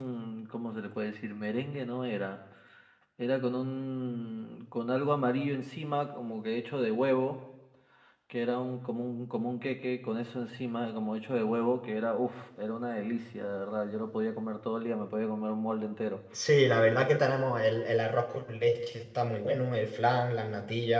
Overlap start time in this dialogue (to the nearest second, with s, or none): none